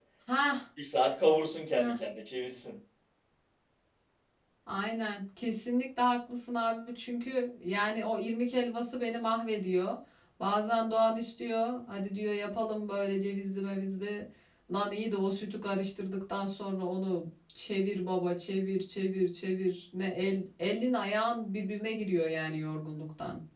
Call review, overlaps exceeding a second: none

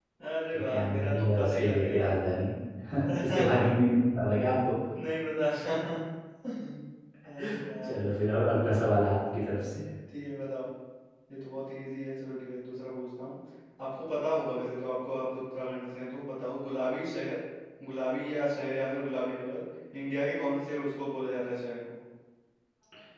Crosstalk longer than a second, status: present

